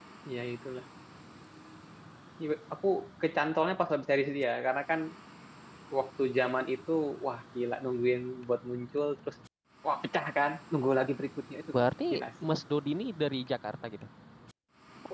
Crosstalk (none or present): none